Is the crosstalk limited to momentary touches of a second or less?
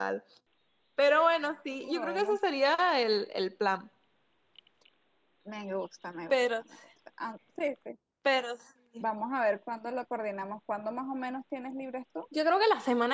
Yes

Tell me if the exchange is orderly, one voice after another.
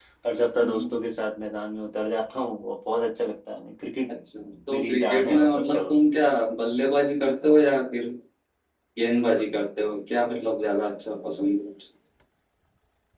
No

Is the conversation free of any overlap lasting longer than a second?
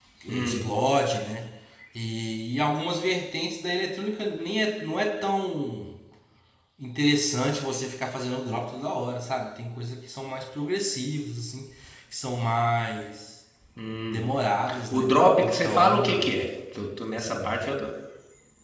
No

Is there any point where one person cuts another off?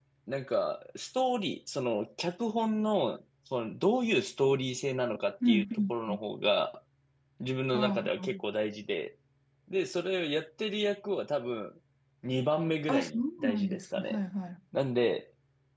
Yes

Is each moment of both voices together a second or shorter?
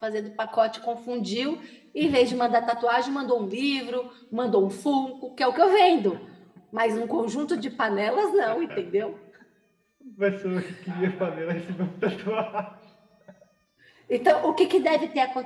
Yes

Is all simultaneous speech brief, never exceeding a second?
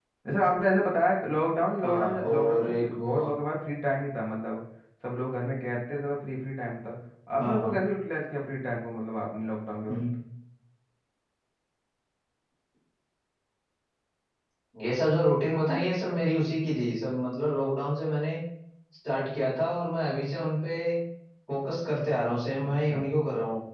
No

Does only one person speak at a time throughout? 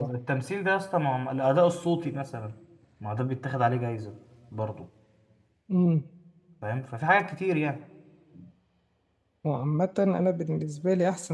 Yes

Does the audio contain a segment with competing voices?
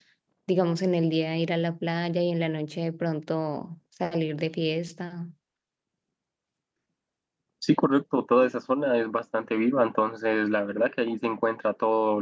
No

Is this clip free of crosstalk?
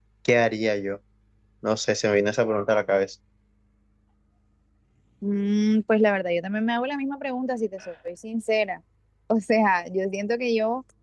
Yes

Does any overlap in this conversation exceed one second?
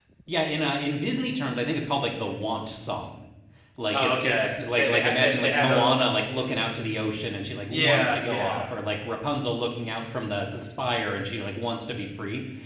Yes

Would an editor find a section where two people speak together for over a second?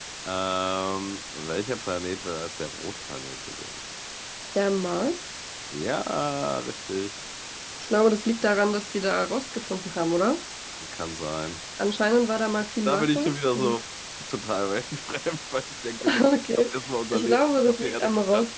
Yes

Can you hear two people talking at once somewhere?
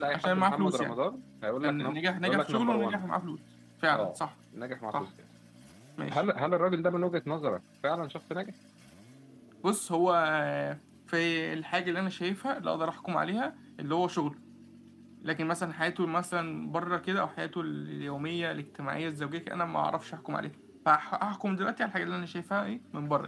Yes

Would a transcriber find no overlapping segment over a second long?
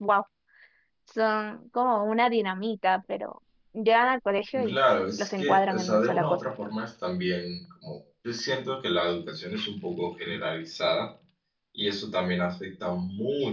No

